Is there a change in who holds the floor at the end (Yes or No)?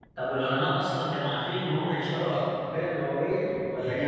No